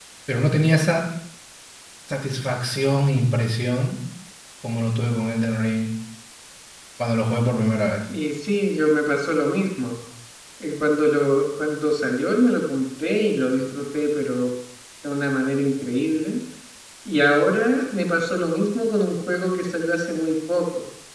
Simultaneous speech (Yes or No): No